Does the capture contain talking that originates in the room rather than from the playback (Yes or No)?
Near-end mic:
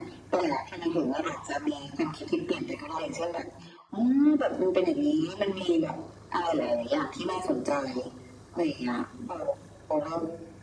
No